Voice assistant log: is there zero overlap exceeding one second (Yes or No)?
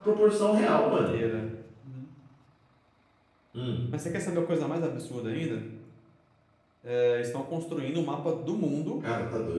Yes